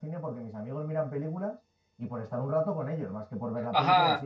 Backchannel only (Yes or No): No